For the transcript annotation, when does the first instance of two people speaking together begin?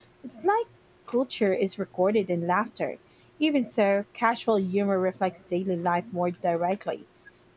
none

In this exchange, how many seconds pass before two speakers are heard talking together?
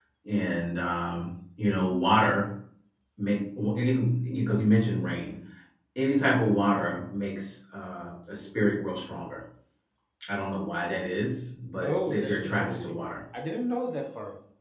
11.8 s

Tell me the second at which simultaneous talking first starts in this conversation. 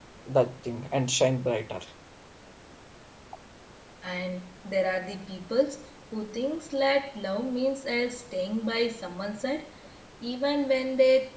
none

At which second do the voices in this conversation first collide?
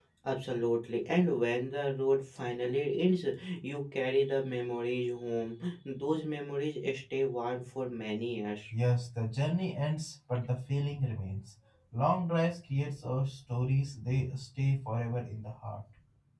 none

